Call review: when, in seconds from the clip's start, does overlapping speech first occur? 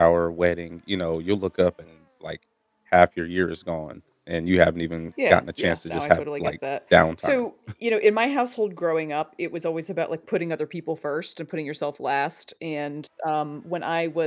5.2 s

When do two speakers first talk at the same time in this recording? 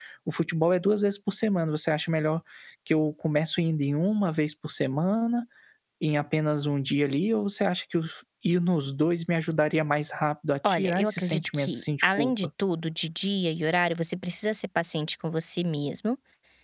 10.6 s

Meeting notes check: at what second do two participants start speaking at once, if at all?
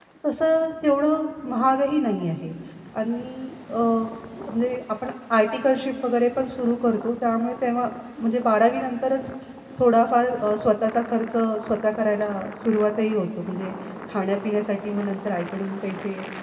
none

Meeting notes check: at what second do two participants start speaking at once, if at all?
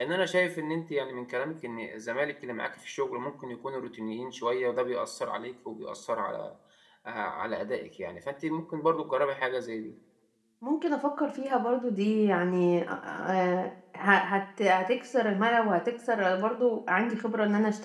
none

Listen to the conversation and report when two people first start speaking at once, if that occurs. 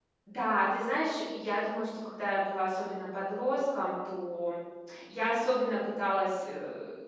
none

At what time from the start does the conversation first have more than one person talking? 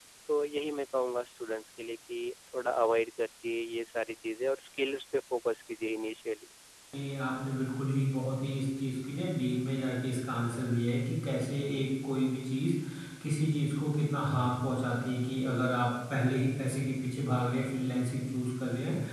none

